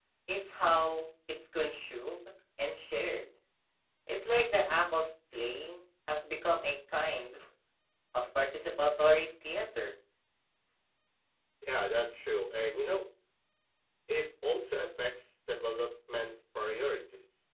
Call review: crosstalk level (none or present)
none